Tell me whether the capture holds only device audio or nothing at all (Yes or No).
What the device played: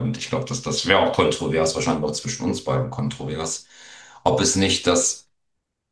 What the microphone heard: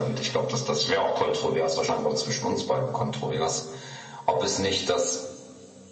Yes